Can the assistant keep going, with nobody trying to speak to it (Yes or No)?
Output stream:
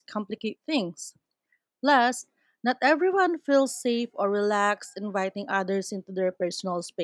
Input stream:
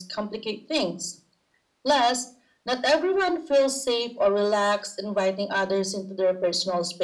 Yes